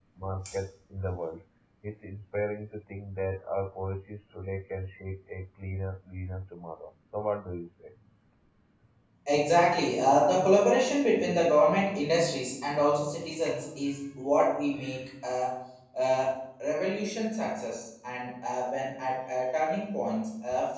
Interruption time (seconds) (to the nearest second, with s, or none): none